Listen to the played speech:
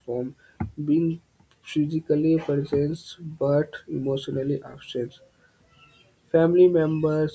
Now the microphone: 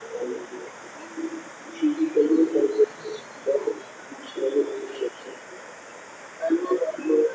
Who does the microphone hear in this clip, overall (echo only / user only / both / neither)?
echo only